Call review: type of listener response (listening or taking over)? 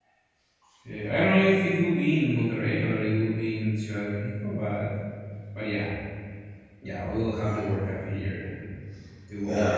taking over